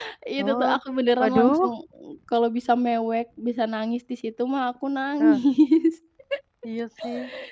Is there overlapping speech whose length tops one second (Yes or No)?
No